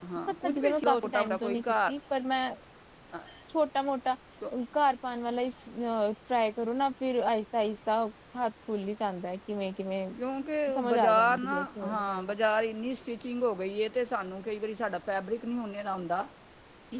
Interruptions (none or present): present